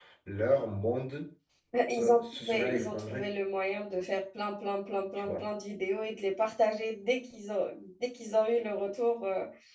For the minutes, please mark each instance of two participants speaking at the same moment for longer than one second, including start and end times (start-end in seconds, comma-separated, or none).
2.0-3.3